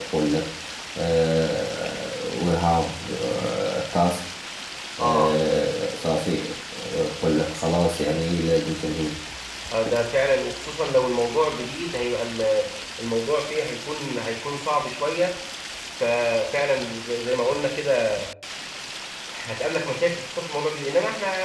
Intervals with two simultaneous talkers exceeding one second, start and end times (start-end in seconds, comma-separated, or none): none